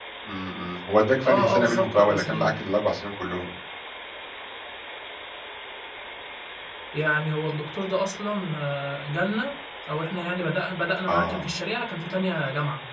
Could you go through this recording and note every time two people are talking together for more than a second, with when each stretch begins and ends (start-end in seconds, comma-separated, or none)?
1.2-2.5